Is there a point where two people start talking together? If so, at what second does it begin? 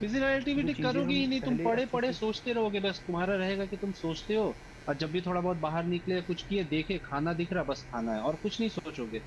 0.6 s

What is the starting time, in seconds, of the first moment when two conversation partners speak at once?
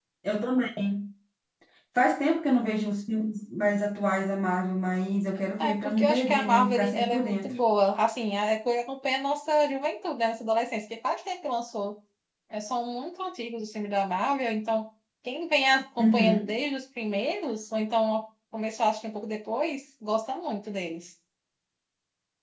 5.6 s

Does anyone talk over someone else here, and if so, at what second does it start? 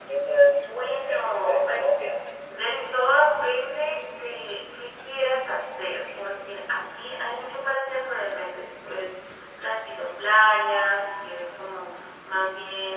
0.6 s

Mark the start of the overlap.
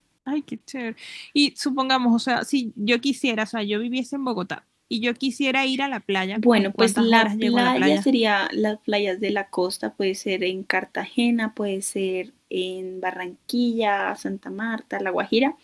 6.4 s

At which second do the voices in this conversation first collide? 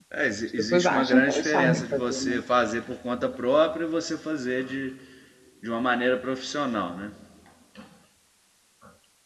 0.6 s

